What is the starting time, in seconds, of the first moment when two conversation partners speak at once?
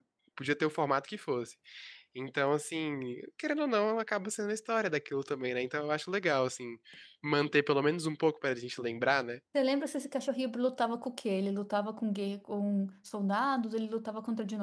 none

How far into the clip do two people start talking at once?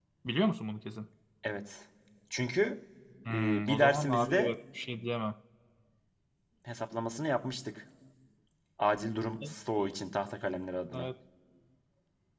3.3 s

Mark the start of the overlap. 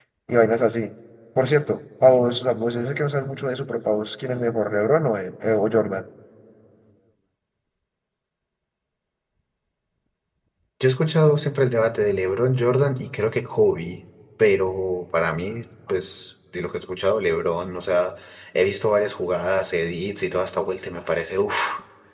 none

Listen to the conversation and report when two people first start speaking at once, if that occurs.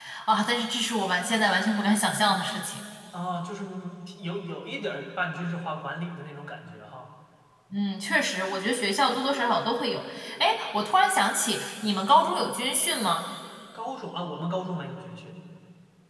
none

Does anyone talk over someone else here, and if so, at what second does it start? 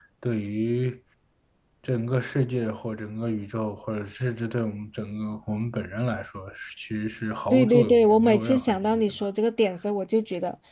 7.5 s

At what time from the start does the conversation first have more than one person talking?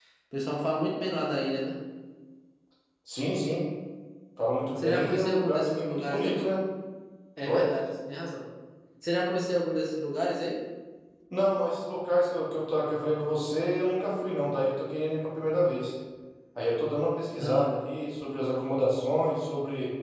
4.8 s

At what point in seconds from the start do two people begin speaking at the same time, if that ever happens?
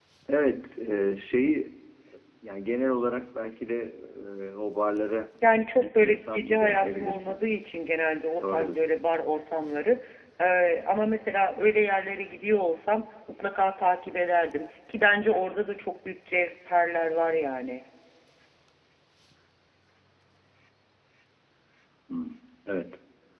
5.8 s

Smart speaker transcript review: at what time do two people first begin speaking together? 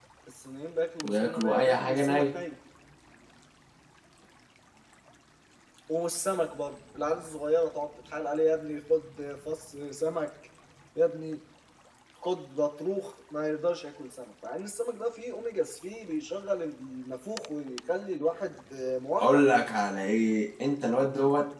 1.0 s

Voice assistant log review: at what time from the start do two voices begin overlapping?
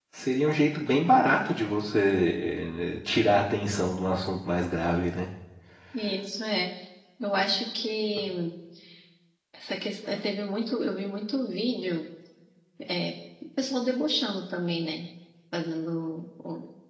none

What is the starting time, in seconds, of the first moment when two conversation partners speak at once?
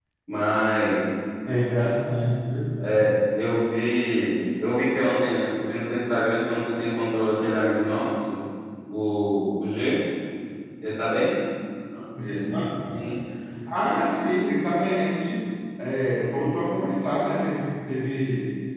none

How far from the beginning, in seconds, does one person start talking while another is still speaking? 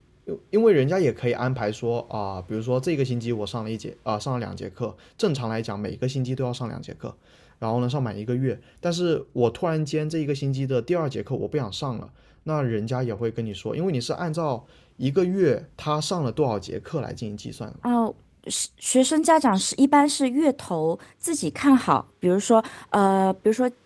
none

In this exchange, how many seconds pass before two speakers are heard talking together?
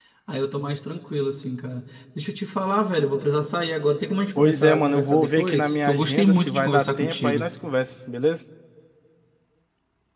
4.4 s

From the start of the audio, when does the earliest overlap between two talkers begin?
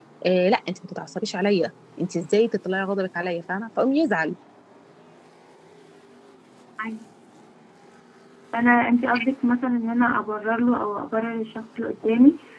none

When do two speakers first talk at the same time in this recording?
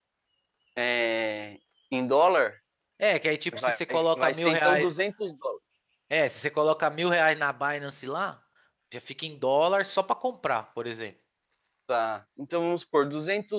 3.6 s

